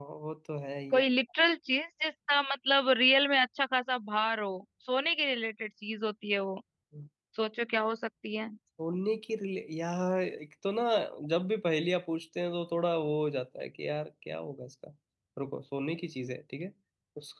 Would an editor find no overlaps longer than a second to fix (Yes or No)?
Yes